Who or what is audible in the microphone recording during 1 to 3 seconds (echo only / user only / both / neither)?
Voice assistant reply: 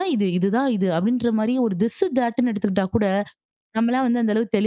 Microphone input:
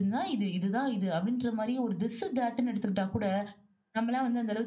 echo only